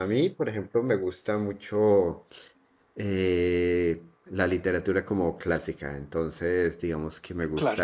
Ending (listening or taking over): listening